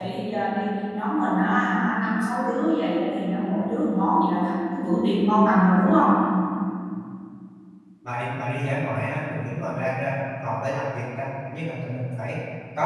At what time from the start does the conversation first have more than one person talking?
none

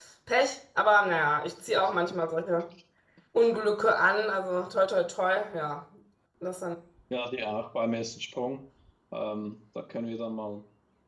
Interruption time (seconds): none

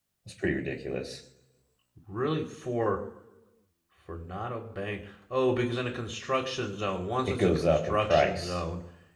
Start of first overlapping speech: 7 s

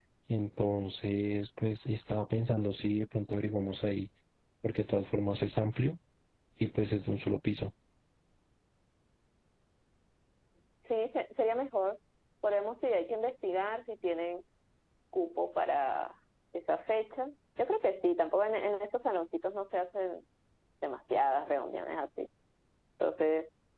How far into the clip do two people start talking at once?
none

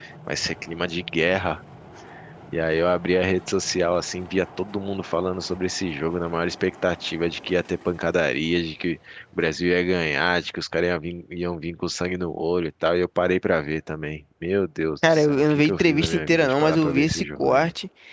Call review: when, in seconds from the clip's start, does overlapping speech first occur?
15 s

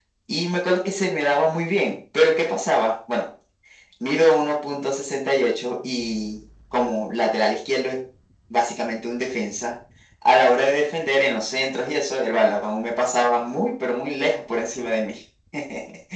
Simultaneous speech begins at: none

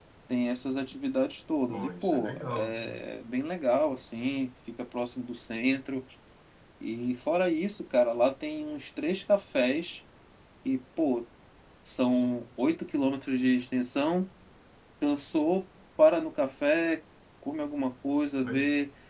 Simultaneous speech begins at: 2 s

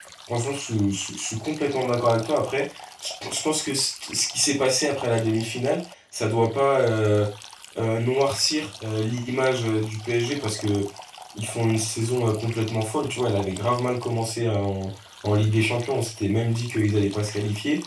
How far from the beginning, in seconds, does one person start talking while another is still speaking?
none

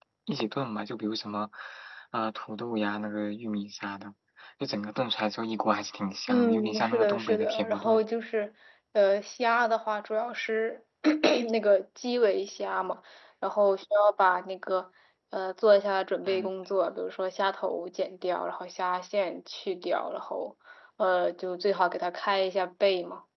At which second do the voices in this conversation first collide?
6 s

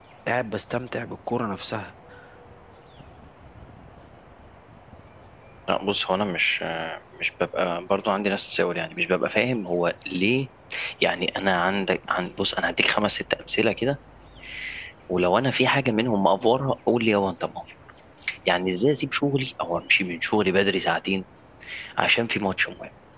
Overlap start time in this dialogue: none

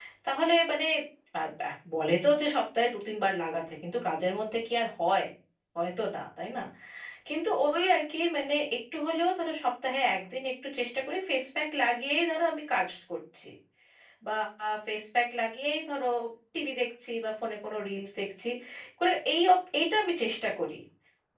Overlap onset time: none

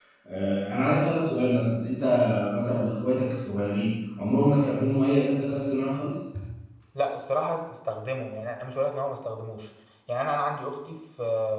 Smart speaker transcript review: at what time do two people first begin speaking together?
none

